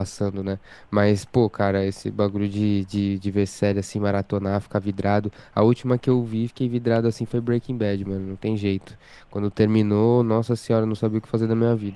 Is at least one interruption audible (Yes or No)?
No